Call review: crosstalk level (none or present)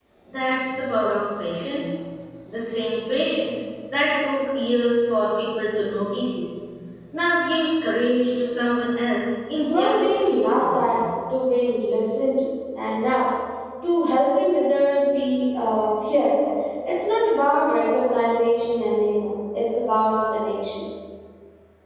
present